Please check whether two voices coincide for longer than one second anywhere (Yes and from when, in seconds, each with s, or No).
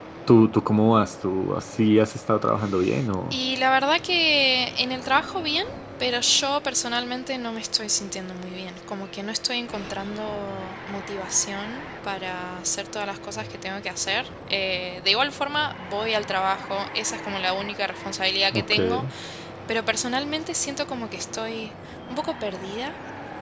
No